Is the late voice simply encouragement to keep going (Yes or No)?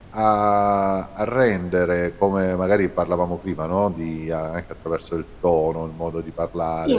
Yes